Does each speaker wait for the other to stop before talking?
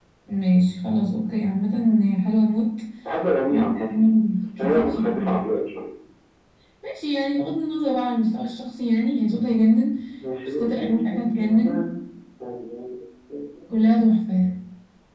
No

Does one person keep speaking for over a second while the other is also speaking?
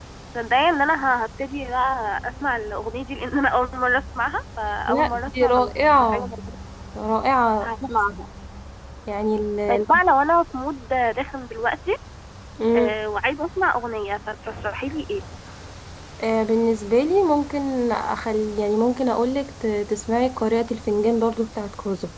Yes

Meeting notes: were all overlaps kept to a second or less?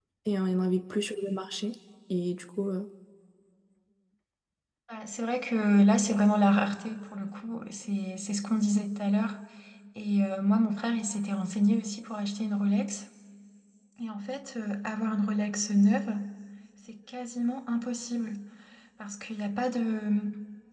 Yes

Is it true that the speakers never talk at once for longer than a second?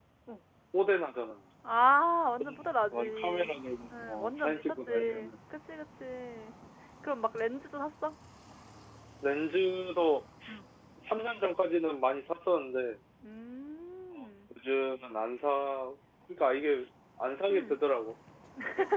No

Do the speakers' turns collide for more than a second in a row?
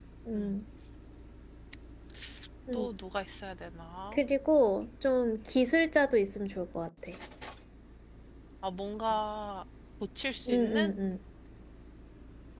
No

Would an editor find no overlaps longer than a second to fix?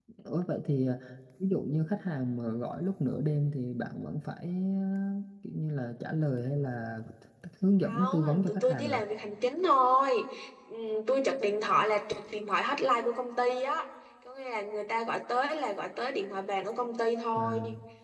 No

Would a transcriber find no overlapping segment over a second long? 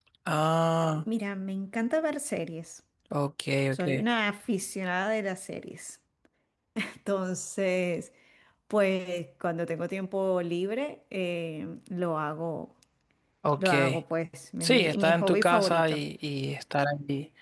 No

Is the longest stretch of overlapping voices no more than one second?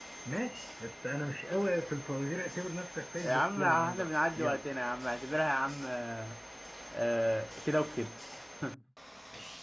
No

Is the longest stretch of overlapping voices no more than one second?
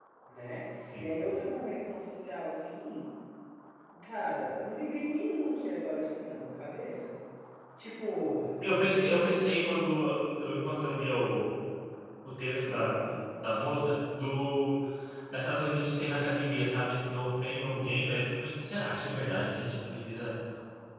Yes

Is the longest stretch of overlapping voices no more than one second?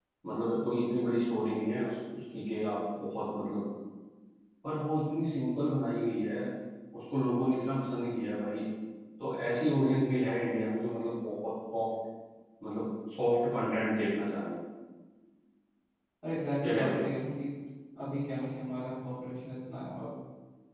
Yes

